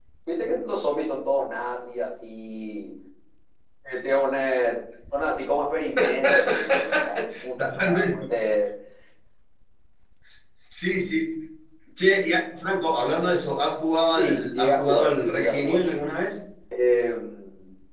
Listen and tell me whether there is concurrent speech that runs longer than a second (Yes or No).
Yes